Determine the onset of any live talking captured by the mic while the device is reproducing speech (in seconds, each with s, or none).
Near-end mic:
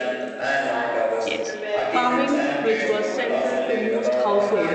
1.2 s